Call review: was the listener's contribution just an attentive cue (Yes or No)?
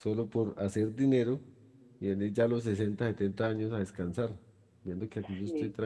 Yes